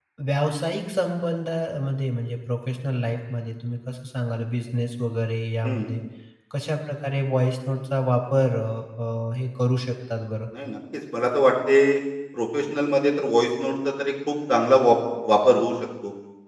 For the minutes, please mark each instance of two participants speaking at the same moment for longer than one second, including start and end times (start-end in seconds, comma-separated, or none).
none